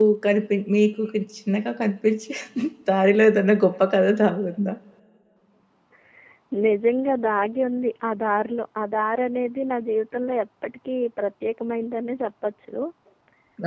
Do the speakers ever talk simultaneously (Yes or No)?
No